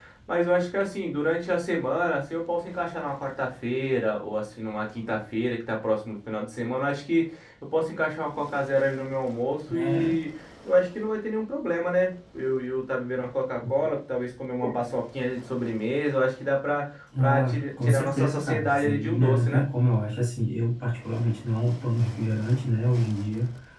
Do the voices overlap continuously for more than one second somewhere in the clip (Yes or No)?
Yes